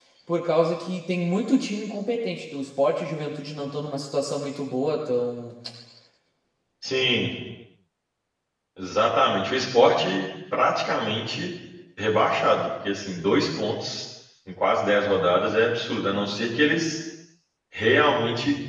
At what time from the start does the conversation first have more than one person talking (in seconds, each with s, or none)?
none